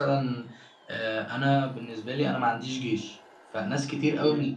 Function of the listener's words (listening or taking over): listening